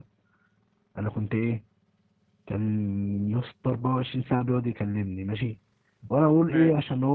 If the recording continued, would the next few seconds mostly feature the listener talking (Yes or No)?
No